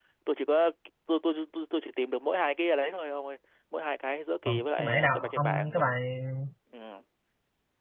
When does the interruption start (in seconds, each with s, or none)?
4.5 s